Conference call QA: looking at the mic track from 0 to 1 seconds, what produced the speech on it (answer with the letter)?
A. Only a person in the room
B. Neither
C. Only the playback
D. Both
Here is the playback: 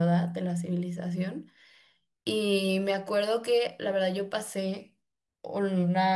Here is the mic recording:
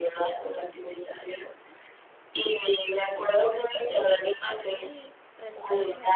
C